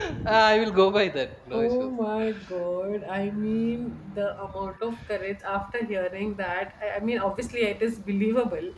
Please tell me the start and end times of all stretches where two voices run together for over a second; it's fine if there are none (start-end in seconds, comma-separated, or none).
none